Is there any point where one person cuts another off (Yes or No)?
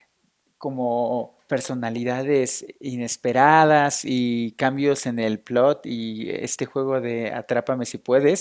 No